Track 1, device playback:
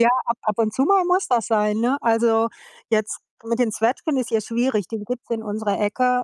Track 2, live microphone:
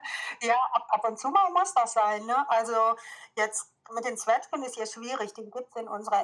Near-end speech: none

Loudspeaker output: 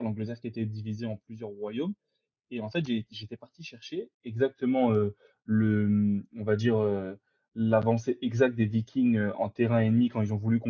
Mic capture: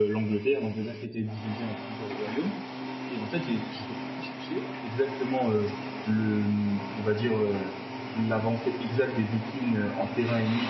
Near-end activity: none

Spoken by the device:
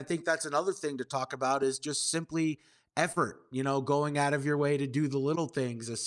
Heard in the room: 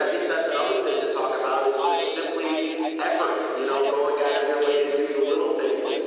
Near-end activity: present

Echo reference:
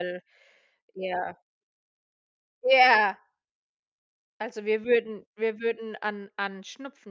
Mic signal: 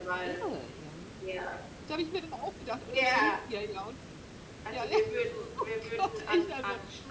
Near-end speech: present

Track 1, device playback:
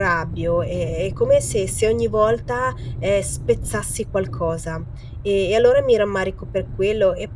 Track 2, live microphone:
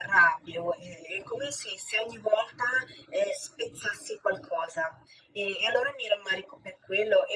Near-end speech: none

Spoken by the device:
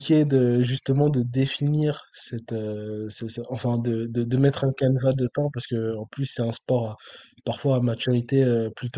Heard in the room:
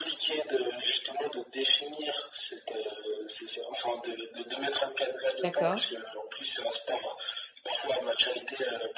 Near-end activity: present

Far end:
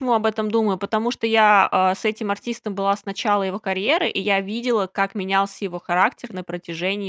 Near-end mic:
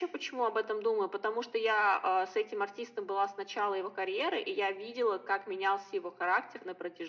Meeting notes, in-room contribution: none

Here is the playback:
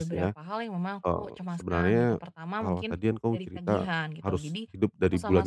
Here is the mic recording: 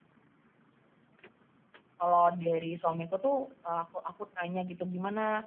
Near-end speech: present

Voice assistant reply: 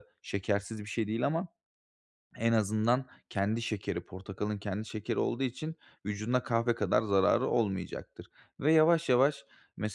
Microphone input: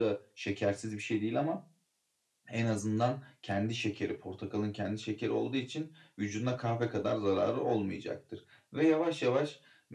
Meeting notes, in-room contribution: none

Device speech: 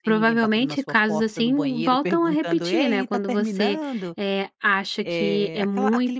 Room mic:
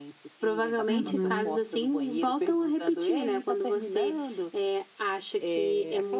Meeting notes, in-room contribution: present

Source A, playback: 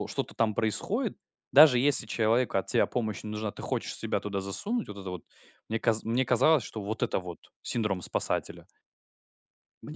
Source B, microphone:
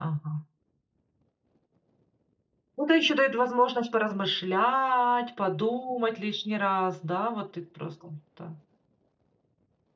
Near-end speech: present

